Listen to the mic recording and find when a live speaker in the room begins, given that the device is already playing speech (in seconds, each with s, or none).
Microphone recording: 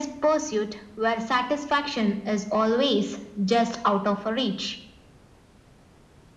none